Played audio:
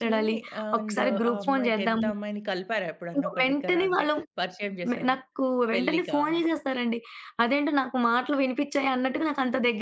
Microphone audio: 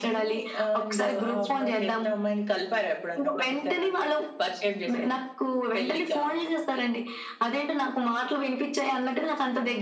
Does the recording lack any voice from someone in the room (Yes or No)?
Yes